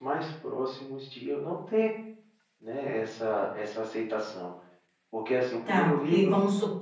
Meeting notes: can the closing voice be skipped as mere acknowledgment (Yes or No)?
No